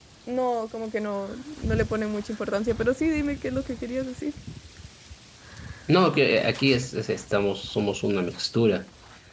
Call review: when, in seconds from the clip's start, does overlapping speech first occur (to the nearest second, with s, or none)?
none